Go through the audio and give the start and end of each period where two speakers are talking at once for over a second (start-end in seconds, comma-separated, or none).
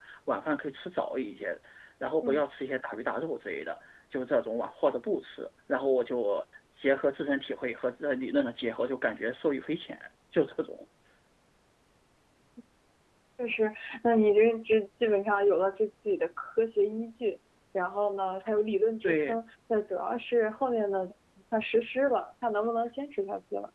none